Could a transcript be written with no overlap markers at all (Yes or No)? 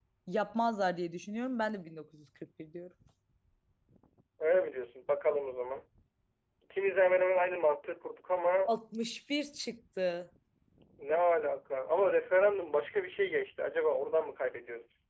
Yes